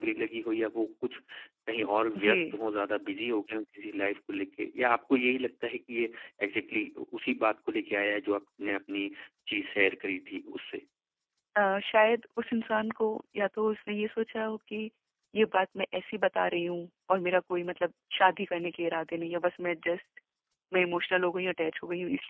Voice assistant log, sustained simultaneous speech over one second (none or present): none